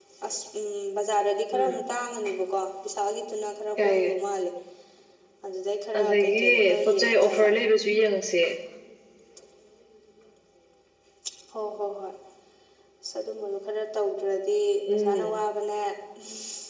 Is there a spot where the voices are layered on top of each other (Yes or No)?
Yes